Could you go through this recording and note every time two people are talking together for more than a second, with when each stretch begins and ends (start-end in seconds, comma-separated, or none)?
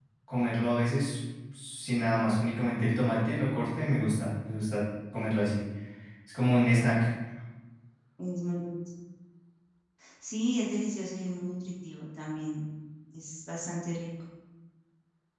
none